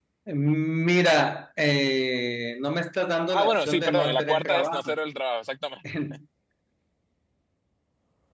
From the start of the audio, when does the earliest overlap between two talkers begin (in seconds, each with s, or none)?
3.3 s